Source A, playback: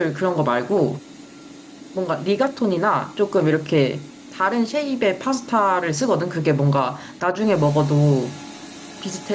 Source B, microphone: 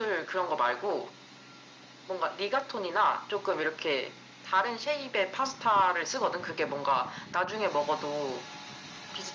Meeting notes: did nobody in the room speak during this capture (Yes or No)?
Yes